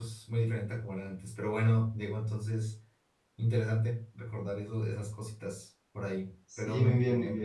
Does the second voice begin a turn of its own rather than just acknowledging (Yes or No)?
Yes